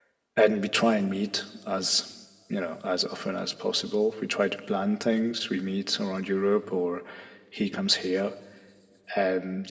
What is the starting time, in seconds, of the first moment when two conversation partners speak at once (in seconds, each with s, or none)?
none